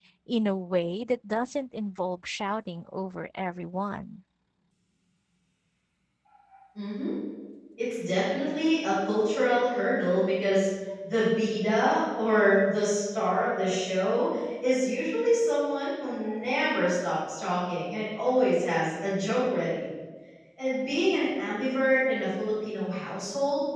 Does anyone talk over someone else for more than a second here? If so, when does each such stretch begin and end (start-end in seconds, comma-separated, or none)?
none